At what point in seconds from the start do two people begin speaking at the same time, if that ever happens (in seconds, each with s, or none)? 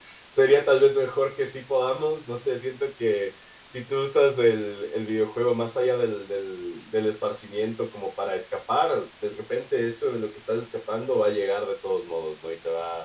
none